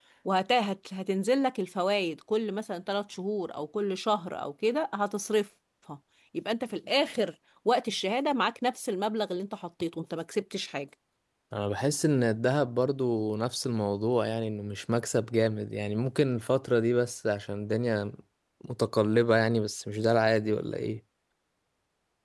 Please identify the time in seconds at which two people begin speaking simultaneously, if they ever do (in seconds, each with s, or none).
none